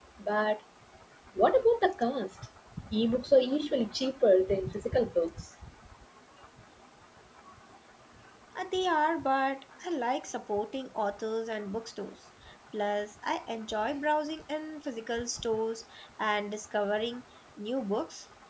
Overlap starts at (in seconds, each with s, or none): none